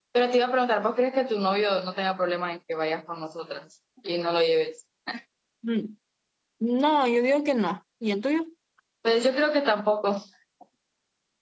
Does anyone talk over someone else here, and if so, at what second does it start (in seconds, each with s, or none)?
none